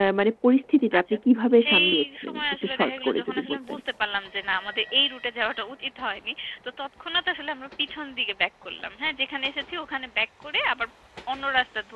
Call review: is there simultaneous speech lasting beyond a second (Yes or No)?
Yes